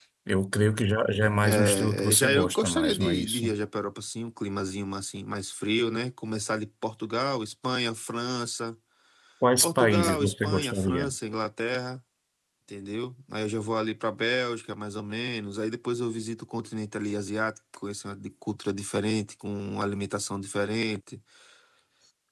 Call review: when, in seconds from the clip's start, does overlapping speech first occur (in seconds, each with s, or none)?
1.5 s